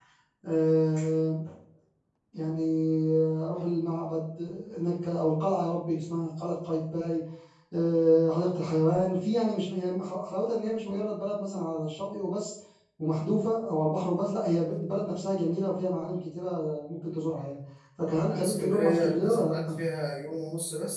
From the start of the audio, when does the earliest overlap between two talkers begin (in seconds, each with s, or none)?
18.3 s